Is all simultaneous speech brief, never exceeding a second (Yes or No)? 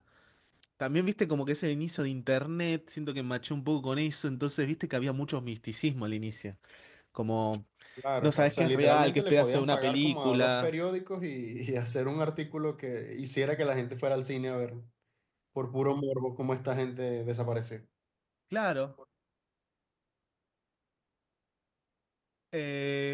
No